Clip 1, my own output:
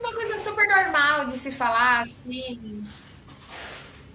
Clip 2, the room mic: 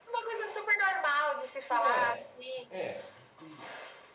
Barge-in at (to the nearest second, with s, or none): 2 s